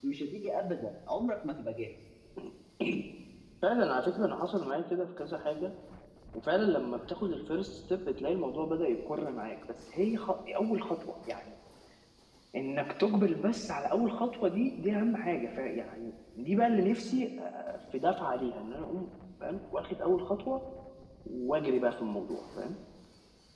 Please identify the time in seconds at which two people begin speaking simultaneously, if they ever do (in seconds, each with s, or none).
none